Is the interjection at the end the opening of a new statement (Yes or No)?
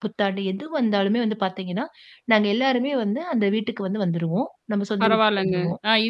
Yes